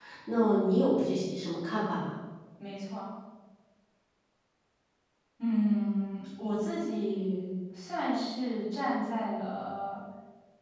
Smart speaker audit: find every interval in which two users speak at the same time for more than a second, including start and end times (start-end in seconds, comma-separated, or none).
none